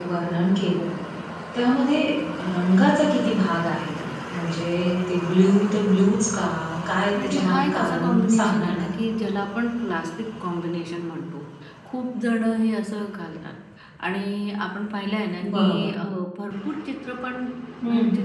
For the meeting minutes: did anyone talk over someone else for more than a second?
Yes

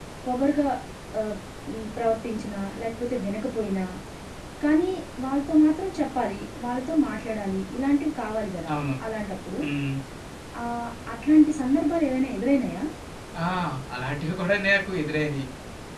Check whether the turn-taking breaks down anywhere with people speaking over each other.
No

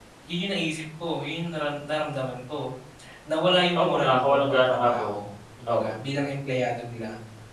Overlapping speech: Yes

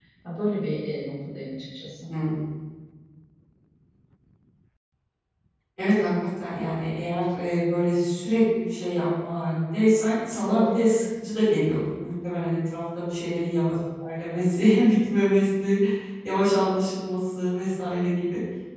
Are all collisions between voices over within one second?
Yes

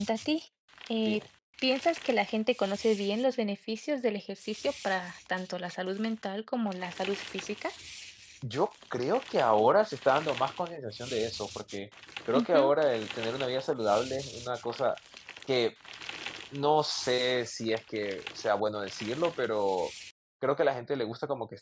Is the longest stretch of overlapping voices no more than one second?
Yes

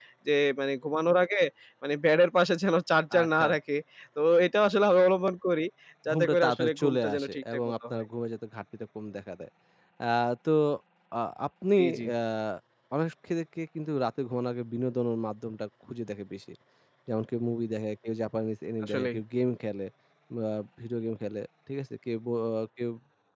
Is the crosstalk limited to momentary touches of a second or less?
No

